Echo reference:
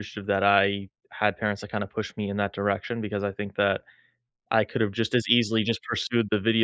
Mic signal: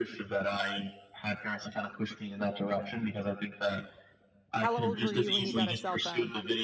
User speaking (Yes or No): Yes